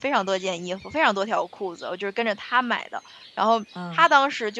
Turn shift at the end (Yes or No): No